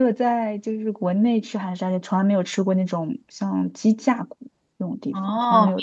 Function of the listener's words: taking over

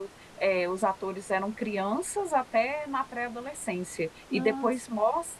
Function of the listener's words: listening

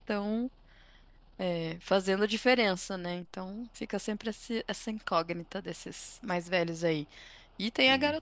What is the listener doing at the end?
listening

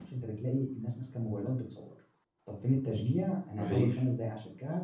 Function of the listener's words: listening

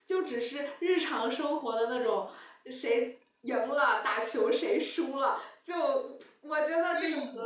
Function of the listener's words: listening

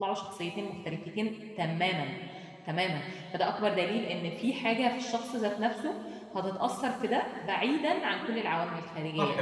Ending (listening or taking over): taking over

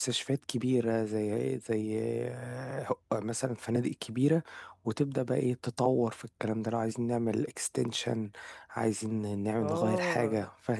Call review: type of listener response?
taking over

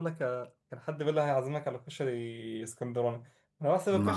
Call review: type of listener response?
listening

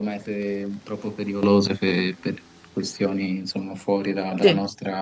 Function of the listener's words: listening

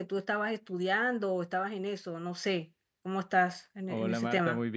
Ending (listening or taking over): taking over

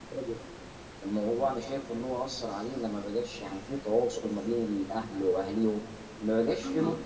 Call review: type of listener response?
taking over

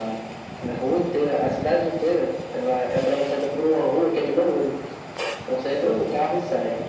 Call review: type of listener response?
listening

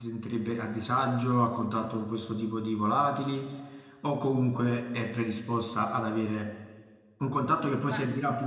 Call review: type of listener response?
listening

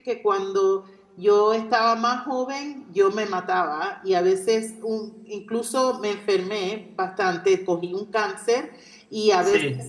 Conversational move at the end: listening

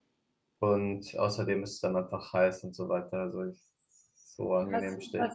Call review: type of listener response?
taking over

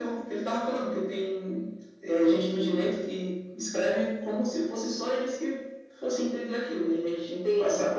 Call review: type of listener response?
taking over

